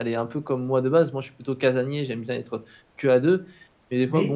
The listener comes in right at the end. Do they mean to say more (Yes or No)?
No